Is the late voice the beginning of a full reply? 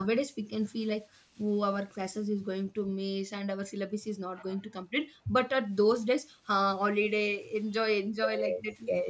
Yes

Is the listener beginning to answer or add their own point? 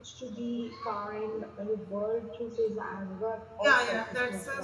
Yes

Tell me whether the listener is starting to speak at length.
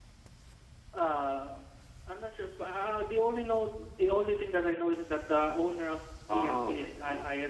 Yes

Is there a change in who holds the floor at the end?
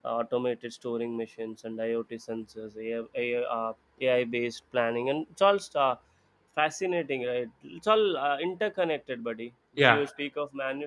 No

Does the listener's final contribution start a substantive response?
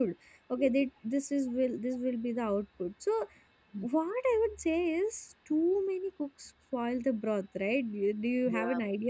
No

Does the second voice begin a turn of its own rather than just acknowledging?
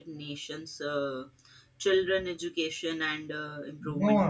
Yes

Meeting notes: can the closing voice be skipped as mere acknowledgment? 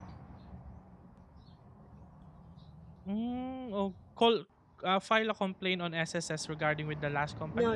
No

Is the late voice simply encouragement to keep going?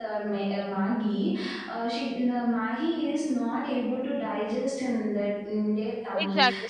No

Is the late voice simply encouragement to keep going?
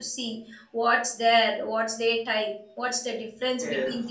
Yes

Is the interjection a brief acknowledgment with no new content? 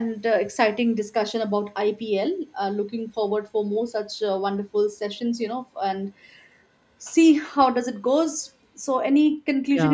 No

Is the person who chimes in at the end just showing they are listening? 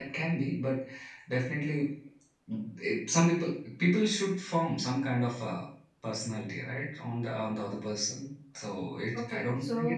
No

